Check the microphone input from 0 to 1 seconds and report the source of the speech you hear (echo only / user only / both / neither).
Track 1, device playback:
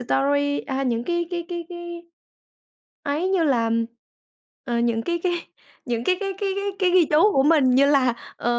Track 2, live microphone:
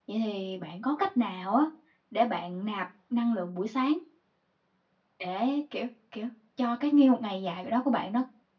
user only